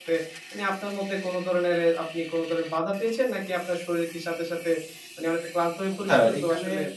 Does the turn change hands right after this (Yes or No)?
Yes